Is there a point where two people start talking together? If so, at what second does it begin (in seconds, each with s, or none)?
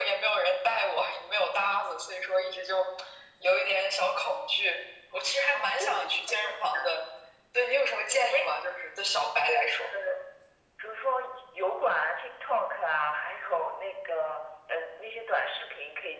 5.5 s